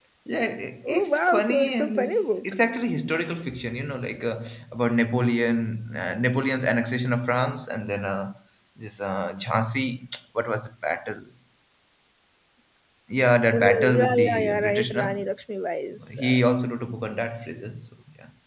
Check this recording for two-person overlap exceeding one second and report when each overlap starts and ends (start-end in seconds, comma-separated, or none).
0.9-2.5, 13.5-15.2